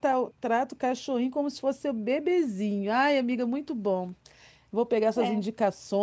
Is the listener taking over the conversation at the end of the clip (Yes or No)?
No